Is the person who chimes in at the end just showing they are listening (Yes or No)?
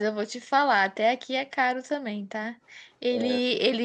Yes